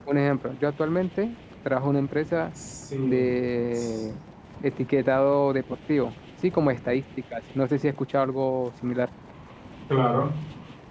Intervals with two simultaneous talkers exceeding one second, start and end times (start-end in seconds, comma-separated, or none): none